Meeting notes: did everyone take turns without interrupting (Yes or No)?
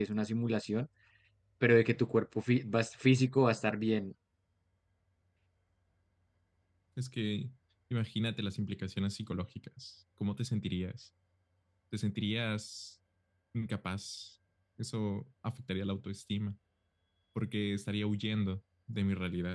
Yes